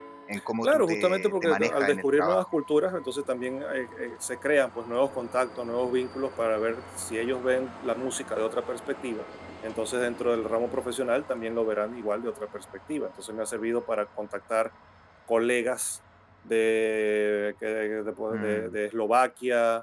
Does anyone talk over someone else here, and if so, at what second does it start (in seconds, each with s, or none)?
0.6 s